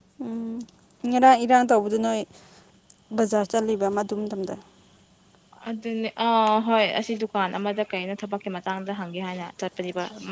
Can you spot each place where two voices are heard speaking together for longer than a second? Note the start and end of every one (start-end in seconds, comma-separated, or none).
none